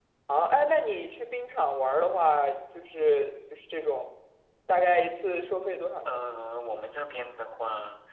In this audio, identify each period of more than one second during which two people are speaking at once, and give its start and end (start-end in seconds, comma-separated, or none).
none